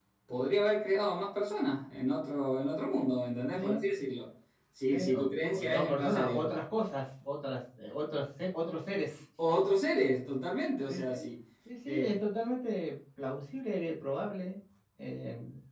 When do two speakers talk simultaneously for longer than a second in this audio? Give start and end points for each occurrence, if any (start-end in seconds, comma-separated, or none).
4.9-6.5